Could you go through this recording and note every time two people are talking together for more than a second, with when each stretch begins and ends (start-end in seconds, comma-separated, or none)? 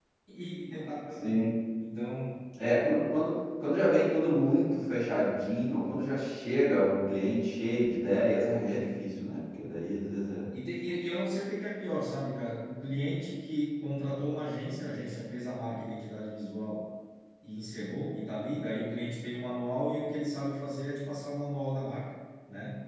none